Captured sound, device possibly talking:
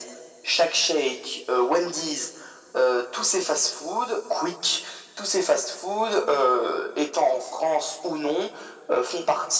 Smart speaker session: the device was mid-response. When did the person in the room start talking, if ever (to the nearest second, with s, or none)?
none